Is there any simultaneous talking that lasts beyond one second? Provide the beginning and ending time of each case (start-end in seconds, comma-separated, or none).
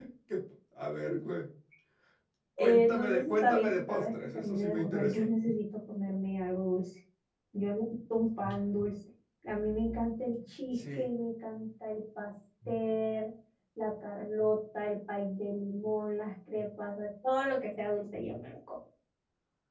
2.6-5.2